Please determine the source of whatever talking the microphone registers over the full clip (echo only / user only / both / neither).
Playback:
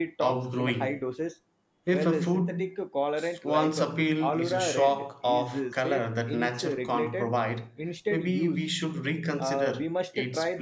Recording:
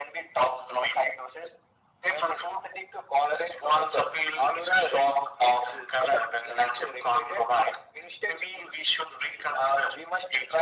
echo only